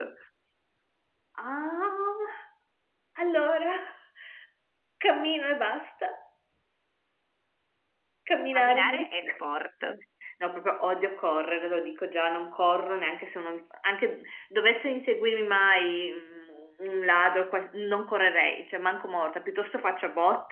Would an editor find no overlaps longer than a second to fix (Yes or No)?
Yes